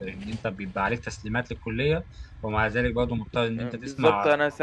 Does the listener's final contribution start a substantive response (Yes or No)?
Yes